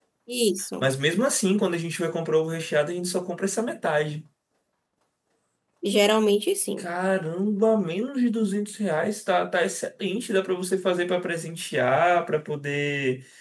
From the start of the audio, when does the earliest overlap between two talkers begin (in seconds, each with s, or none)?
none